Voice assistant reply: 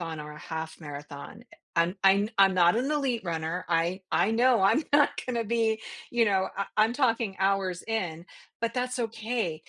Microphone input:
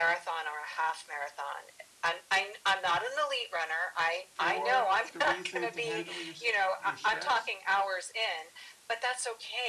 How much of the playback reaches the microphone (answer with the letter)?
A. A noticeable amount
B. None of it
A